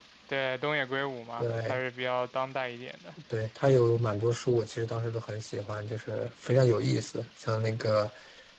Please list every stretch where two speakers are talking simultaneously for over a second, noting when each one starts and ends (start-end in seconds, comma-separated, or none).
none